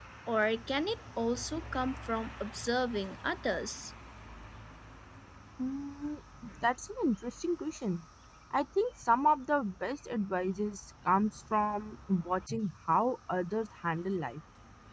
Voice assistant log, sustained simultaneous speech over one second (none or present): none